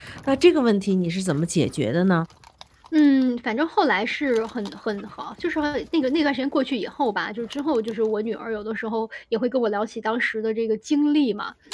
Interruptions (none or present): none